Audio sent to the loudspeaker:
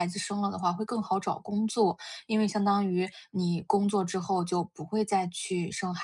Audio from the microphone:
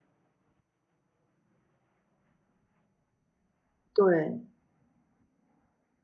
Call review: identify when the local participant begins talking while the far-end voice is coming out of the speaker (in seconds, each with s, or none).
4.0 s